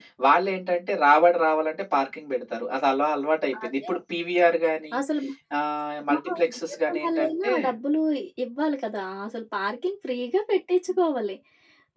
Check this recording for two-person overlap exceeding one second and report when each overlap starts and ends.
6.0-7.5

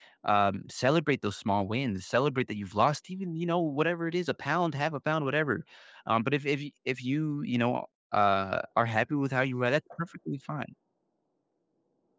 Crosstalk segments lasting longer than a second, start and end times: none

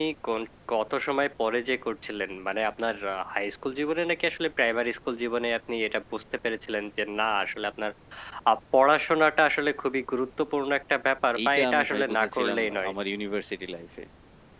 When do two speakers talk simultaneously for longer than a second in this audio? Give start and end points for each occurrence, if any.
11.5-12.9

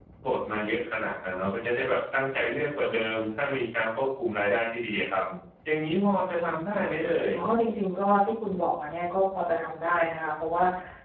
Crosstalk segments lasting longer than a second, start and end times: none

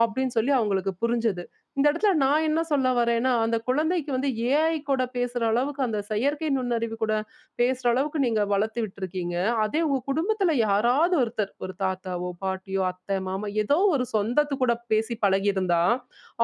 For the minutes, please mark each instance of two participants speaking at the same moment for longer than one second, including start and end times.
none

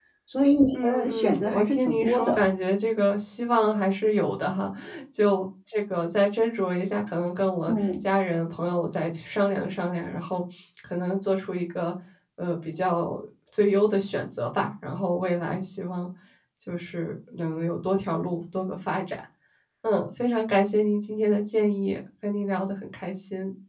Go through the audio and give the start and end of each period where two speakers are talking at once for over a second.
0.7-2.4

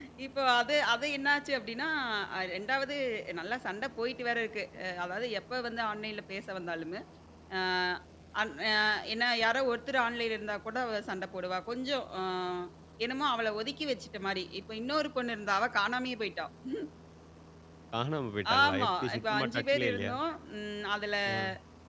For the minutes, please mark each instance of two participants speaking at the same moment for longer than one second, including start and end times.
18.6-20.1

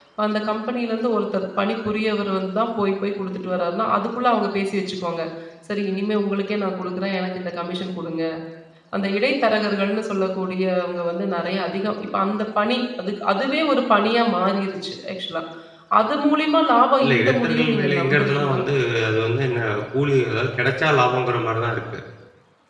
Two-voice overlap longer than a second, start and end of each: 17.0-18.6

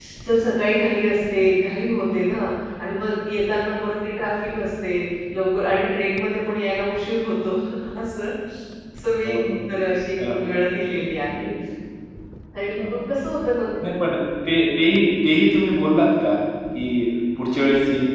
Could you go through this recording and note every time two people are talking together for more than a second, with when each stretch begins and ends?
none

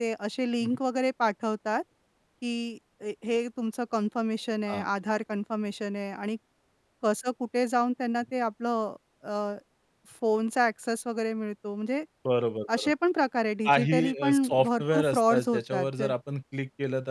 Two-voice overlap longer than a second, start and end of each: 13.7-16.1

